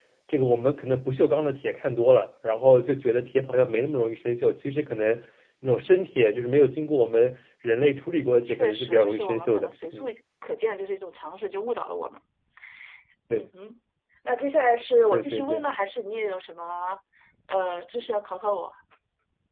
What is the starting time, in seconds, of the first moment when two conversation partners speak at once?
8.5 s

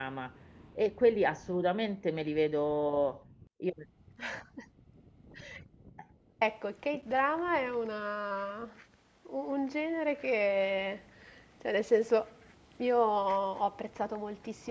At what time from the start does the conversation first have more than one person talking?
none

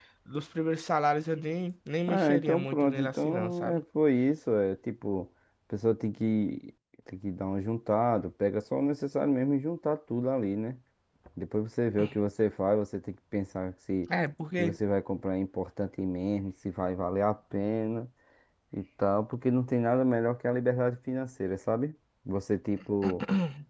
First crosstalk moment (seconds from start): 2.1 s

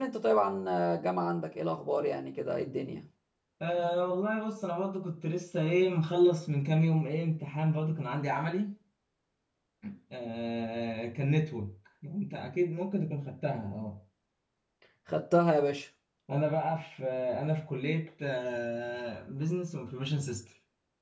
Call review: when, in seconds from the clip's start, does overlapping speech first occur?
none

